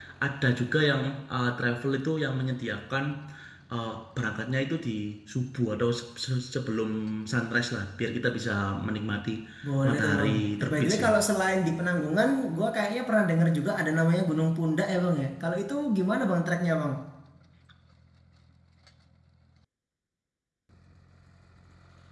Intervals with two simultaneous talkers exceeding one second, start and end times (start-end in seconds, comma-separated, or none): 9.9-11.1